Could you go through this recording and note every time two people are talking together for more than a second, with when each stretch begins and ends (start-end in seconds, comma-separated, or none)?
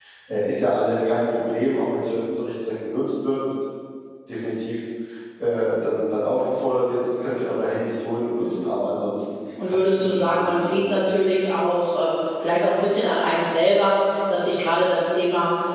9.8-11.1